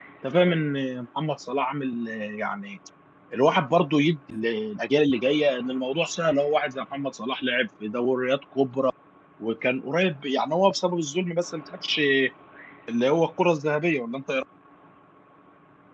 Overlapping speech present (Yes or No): No